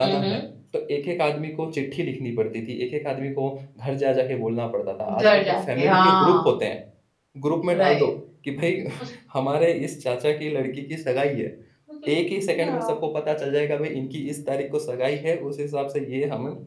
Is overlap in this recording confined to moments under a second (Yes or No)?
No